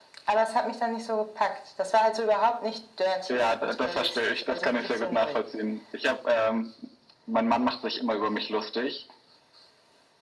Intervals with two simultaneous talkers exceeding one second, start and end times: 3.3-5.4

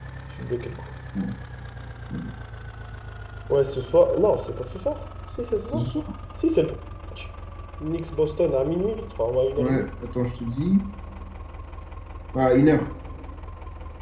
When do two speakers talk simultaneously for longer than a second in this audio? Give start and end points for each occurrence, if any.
none

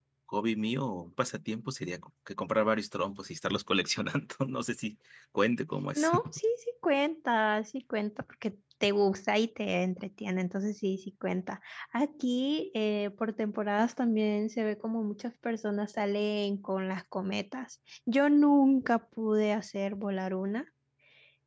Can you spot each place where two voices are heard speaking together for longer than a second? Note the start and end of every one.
none

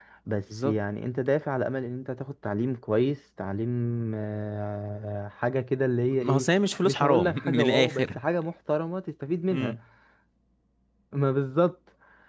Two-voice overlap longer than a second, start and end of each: 6.8-8.1

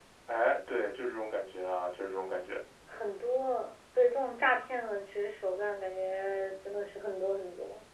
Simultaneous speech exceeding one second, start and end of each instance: none

